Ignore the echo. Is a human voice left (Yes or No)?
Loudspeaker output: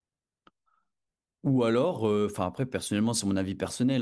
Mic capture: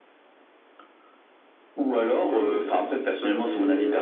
Yes